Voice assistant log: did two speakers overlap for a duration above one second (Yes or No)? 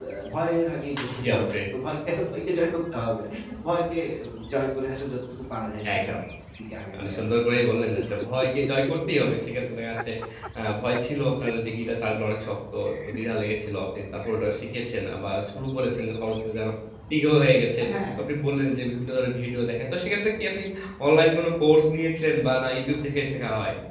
No